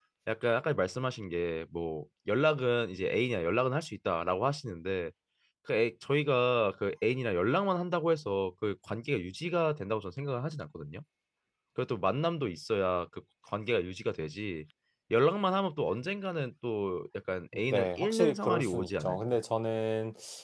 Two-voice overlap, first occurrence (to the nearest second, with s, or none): 18 s